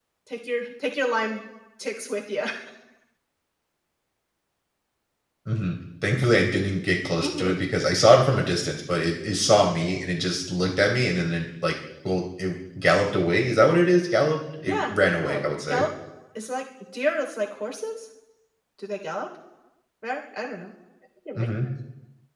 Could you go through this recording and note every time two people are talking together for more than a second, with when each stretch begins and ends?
14.6-15.8

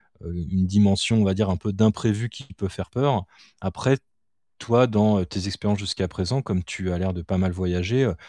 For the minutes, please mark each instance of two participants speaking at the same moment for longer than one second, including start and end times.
none

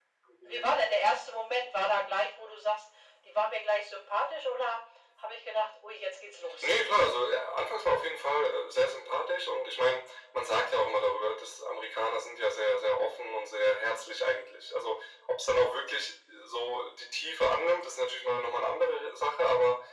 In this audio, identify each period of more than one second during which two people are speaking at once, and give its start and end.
none

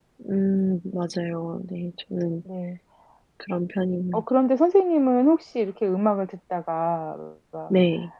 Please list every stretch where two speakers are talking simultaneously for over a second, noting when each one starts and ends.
none

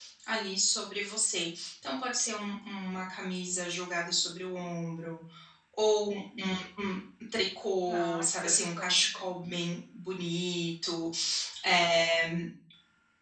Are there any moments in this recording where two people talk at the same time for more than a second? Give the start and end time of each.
7.8-9.2

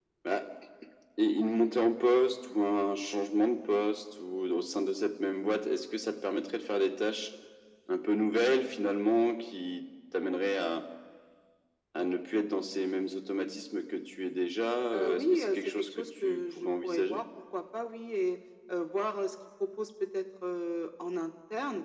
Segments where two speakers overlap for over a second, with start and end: 14.9-17.2

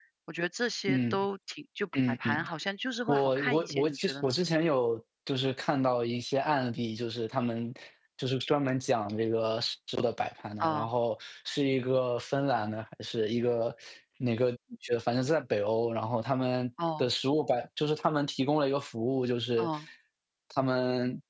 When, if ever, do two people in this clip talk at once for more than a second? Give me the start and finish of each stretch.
3.1-4.3

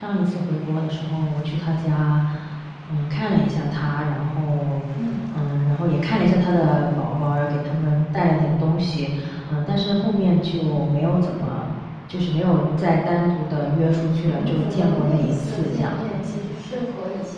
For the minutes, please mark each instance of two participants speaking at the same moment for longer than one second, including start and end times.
14.2-16.6

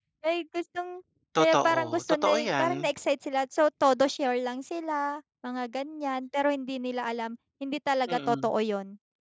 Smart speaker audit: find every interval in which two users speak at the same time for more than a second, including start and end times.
1.4-2.9

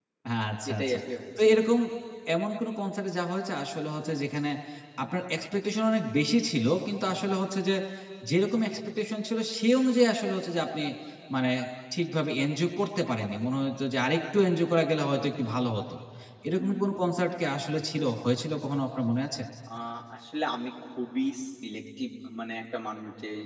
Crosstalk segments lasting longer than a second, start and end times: none

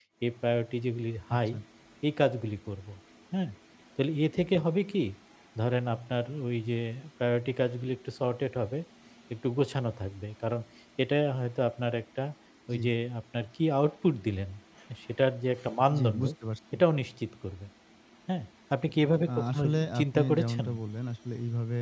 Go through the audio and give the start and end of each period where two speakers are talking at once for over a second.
19.4-20.6

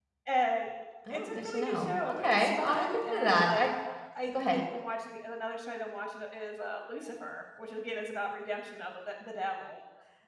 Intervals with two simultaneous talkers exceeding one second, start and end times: 1.1-3.7

